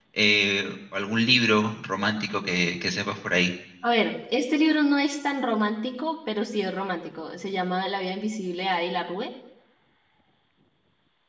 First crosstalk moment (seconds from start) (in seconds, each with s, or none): none